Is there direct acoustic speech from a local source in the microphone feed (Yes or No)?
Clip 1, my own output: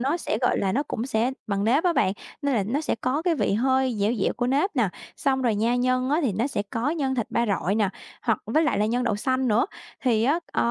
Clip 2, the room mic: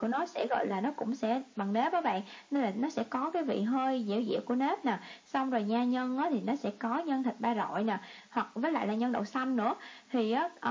No